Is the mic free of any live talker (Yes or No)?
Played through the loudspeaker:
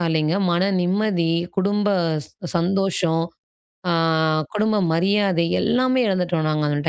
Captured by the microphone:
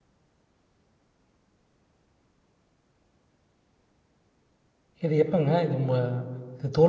No